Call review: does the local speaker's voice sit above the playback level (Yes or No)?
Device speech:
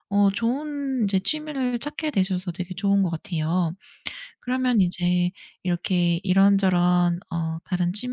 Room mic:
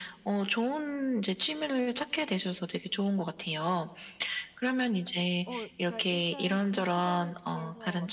No